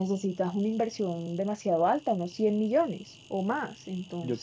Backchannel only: No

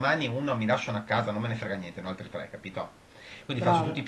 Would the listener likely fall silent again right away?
Yes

